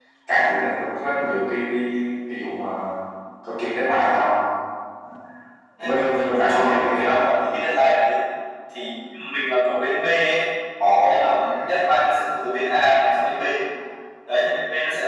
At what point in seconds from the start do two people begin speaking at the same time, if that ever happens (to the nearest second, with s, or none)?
6 s